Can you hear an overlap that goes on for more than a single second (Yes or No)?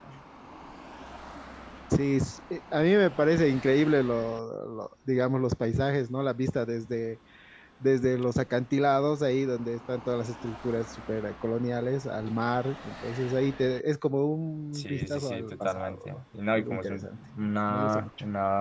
Yes